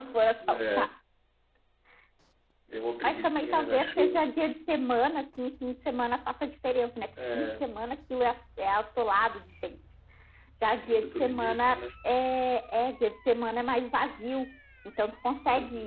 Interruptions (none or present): present